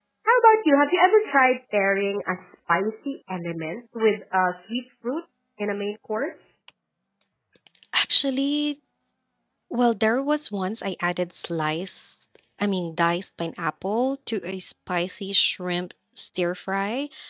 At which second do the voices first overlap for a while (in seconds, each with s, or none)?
none